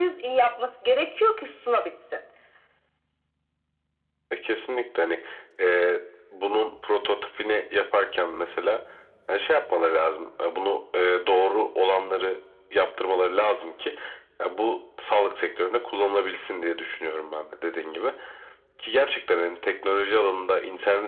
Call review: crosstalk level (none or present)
none